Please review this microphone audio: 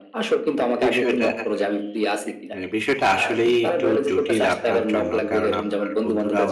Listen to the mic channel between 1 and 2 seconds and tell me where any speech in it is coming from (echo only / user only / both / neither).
both